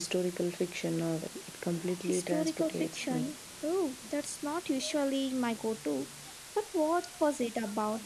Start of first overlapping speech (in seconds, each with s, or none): 2.0 s